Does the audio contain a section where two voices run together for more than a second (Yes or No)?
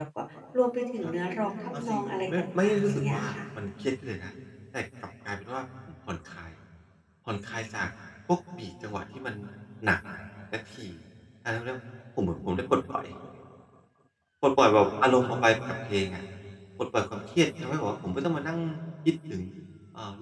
Yes